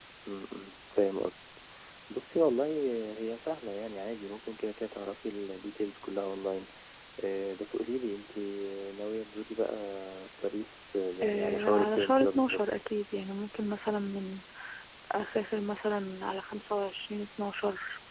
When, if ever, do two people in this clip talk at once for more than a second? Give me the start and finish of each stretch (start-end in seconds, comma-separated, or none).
11.2-12.6